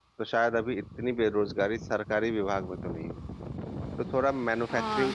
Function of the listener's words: taking over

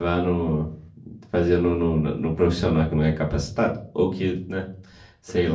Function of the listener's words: taking over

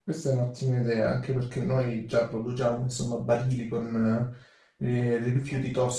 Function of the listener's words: listening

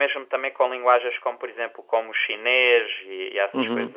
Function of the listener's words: taking over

